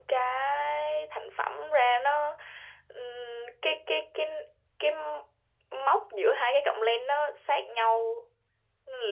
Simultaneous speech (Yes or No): No